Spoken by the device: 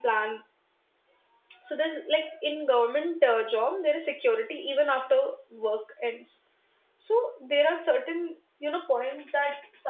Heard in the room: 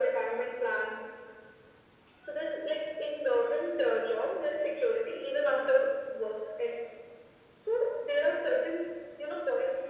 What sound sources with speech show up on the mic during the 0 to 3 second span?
echo only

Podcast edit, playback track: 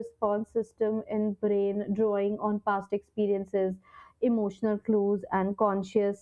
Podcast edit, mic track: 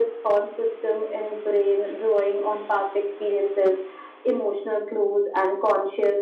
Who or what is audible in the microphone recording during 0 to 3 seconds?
echo only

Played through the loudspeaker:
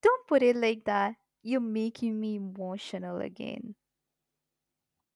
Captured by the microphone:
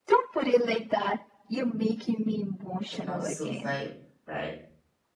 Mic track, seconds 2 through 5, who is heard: both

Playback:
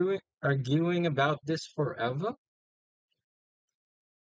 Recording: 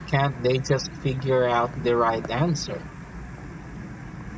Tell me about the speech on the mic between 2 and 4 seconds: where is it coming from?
user only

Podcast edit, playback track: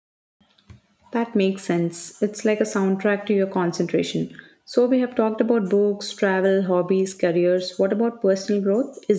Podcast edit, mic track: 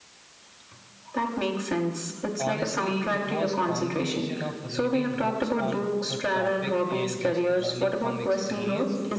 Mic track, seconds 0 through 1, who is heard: neither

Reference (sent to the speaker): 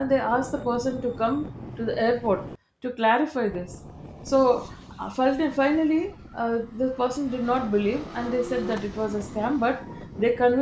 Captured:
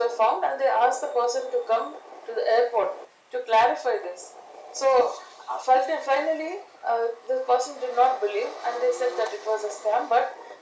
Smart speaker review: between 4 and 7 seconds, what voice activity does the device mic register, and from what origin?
echo only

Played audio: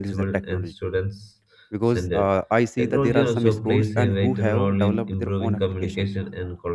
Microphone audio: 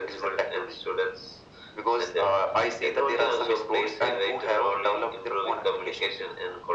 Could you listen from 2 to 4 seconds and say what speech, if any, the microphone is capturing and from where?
echo only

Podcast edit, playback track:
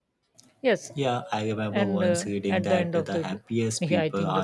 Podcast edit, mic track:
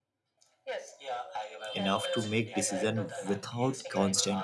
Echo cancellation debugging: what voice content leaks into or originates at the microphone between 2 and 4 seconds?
both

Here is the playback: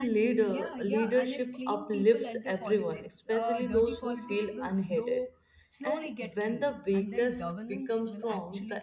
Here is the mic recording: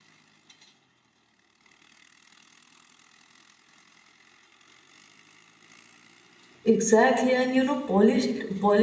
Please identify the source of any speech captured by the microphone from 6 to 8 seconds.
user only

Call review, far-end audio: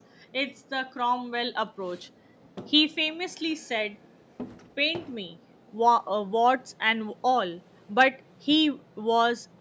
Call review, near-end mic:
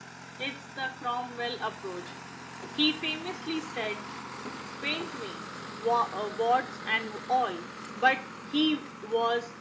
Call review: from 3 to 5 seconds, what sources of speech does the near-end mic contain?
echo only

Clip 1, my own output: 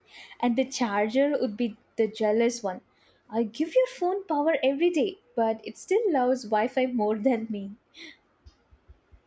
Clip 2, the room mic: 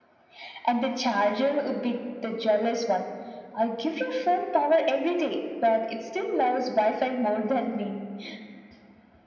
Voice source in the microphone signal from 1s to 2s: echo only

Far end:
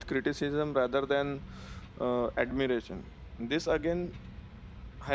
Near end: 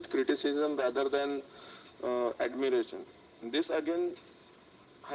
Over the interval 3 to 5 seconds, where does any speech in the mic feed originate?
echo only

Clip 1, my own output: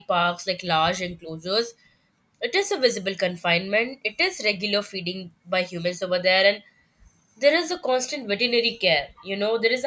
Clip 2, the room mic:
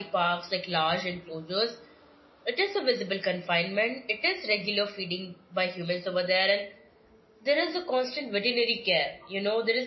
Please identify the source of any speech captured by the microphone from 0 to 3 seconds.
echo only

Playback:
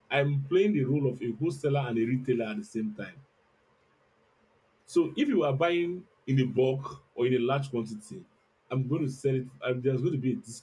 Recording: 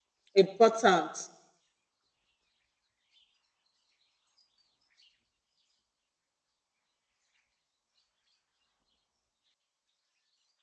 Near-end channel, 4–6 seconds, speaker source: neither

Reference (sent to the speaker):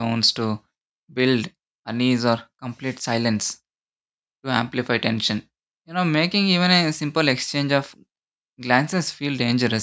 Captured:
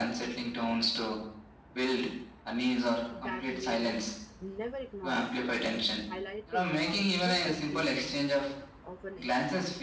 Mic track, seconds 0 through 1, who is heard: echo only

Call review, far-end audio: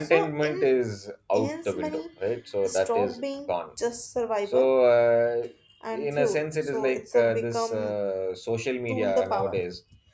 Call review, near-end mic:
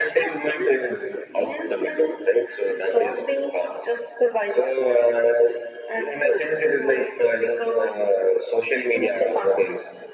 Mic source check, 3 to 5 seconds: echo only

